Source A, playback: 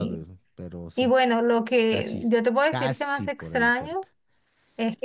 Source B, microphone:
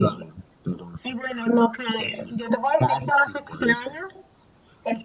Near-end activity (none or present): none